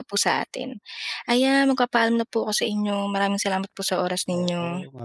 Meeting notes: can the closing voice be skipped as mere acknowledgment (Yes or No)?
No